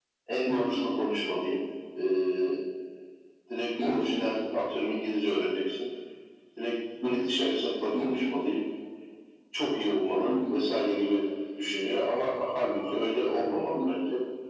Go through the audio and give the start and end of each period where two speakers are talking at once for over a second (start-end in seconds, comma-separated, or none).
none